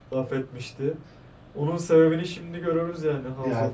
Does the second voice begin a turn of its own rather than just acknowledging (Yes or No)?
Yes